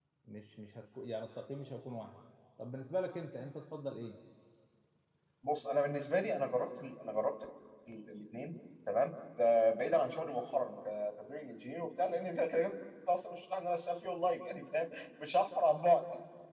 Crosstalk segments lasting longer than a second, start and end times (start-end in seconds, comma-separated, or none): none